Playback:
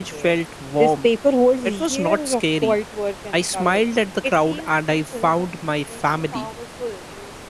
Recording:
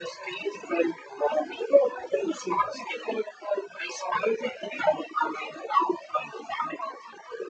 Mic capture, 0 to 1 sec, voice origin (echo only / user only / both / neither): echo only